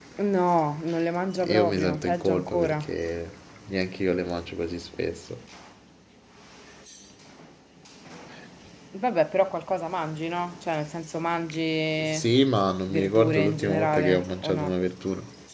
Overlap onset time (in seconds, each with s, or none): 1.4 s